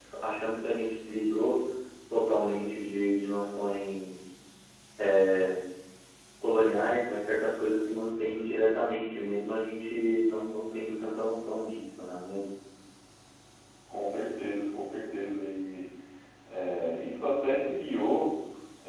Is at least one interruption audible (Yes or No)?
No